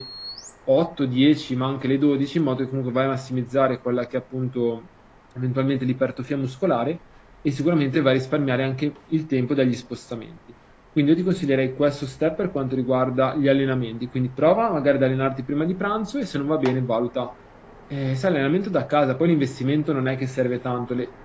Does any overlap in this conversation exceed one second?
No

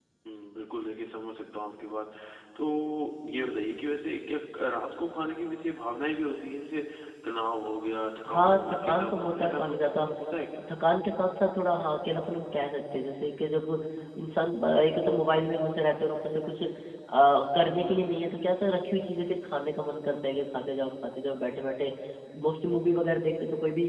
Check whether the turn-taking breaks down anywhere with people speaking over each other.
Yes, from 8.2 s

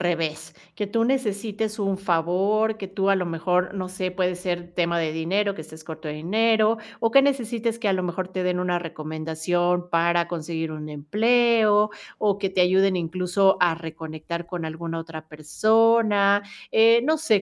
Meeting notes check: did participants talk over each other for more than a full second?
No

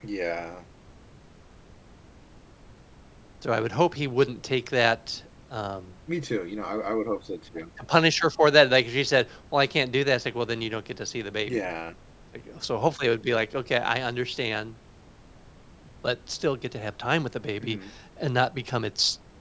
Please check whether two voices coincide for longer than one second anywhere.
No

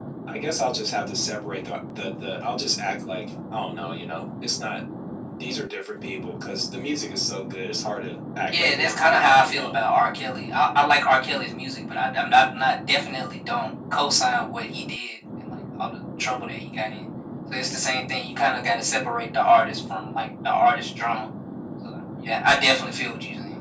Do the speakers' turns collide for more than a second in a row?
Yes, from 8.5 s

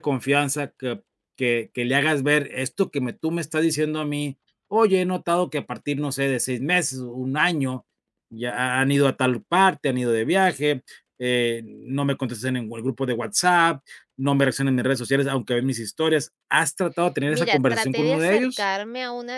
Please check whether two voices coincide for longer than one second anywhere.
Yes, from 17.3 s

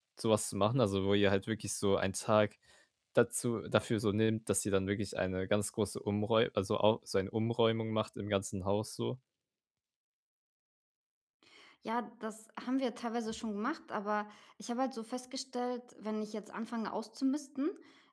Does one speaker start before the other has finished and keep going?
No

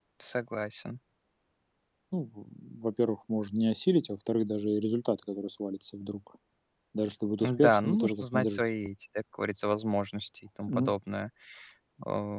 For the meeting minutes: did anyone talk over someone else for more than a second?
Yes, from 7.4 s

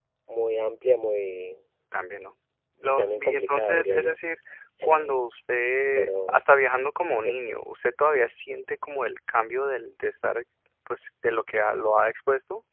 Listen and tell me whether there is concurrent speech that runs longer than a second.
Yes, from 2.8 s

